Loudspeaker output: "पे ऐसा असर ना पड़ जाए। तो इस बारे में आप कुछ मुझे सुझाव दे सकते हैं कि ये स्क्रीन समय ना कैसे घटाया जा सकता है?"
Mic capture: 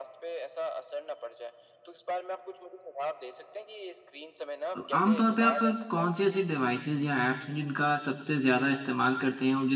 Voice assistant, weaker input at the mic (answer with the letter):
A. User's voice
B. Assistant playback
B